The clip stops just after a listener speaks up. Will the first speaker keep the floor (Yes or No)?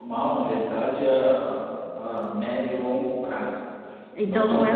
No